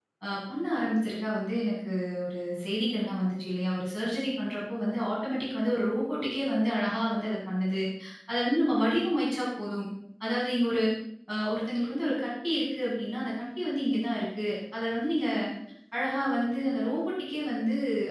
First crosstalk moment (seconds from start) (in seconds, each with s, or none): none